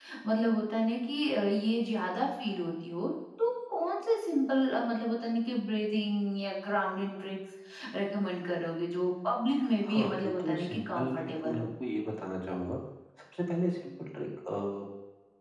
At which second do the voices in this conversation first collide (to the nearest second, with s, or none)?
10 s